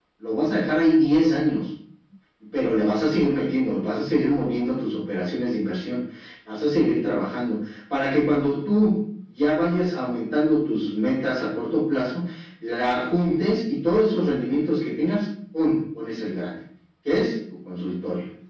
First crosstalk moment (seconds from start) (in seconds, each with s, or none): none